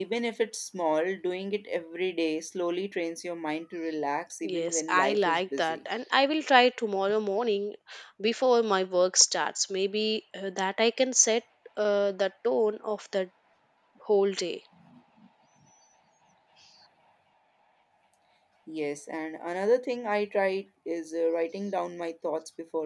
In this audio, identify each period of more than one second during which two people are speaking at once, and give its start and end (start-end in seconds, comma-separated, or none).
4.4-5.8